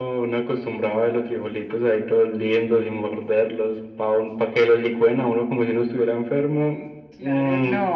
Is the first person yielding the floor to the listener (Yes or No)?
Yes